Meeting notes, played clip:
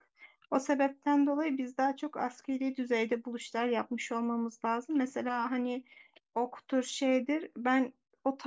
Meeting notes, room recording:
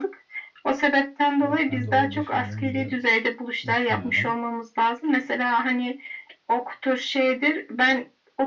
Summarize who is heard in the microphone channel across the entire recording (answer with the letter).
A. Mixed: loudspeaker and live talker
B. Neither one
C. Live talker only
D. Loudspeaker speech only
A